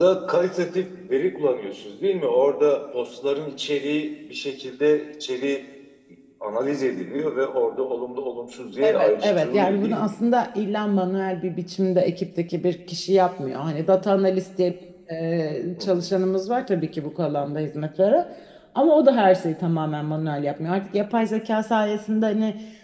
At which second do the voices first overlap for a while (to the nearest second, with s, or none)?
9 s